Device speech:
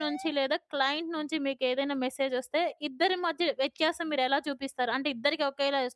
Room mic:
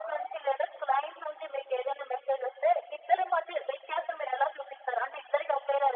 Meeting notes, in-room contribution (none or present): none